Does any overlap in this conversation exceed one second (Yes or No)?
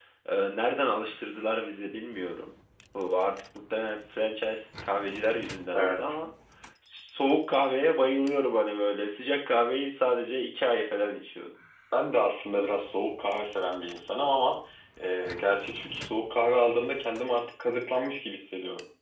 No